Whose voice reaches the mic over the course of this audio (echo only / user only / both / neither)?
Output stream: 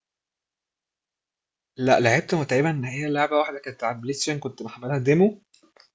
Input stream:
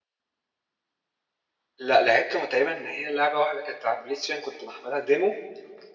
echo only